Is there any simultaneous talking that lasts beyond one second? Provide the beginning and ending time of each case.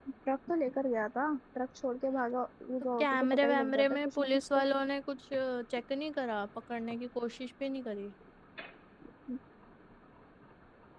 3.0-4.6

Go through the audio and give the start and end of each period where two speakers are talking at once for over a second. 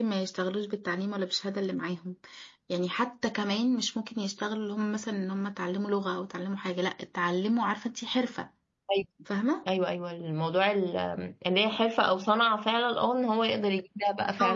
none

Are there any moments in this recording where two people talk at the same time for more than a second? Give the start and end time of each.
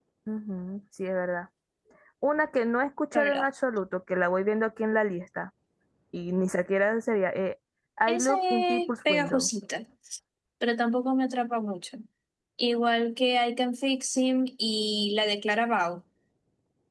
8.1-9.5

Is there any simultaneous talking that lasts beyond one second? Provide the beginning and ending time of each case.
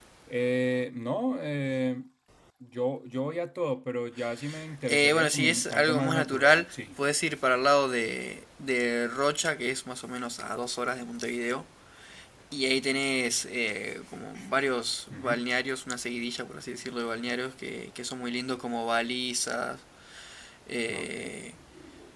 4.9-6.7

